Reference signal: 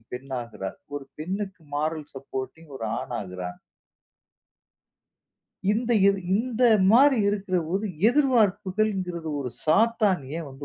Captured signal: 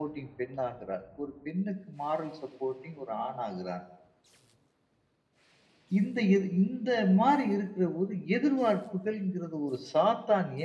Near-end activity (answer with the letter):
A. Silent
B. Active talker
A